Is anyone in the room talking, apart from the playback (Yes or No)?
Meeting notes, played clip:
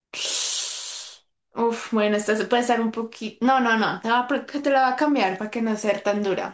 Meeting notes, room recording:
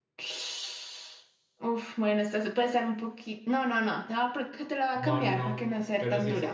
Yes